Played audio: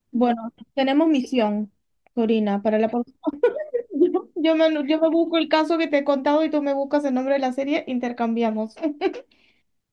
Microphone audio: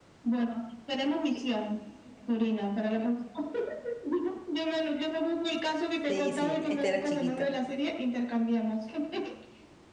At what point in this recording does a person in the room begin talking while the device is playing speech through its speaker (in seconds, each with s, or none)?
6.1 s